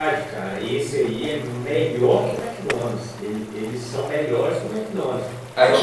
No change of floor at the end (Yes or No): No